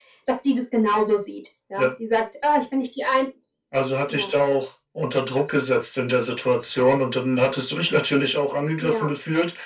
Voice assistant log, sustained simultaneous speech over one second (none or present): none